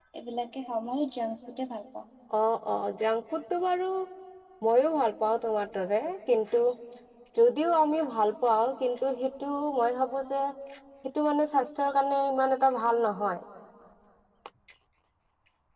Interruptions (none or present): none